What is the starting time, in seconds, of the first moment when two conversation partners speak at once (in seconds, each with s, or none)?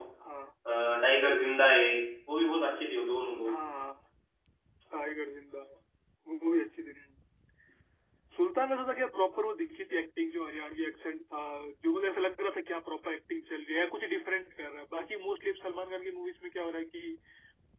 none